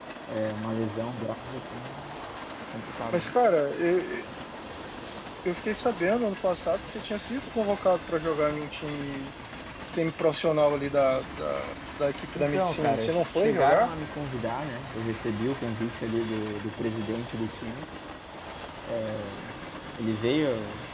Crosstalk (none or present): present